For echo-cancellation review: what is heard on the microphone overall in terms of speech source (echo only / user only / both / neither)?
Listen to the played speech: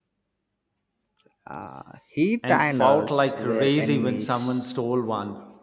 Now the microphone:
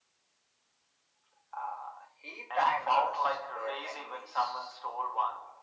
echo only